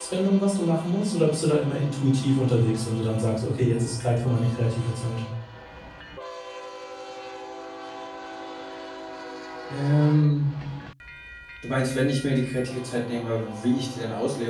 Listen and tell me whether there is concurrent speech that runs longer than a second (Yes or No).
No